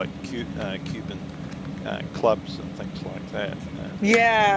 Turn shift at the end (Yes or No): Yes